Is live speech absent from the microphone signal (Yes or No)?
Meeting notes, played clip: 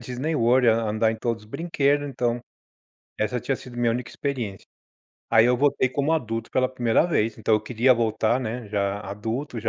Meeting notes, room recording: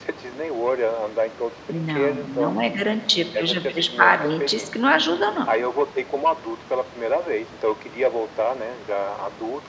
No